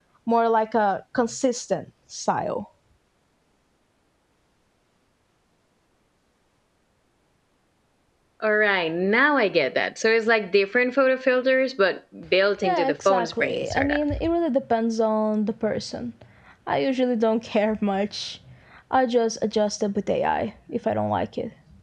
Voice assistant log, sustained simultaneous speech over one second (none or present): present